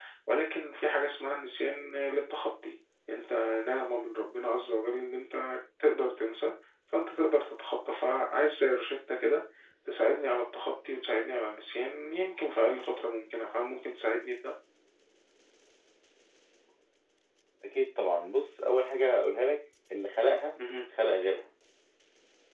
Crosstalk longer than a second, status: none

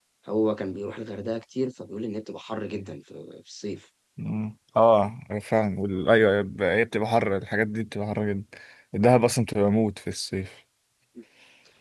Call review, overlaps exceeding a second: none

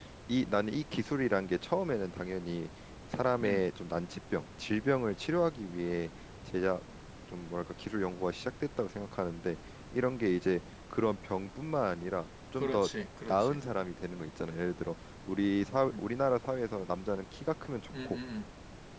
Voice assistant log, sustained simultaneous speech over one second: none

